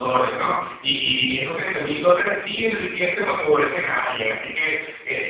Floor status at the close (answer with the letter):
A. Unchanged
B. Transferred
A